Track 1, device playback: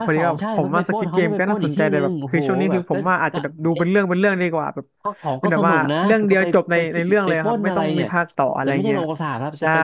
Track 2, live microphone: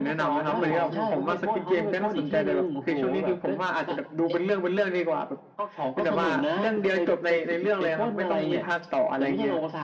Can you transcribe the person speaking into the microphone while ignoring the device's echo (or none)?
สนุกสนุกมาก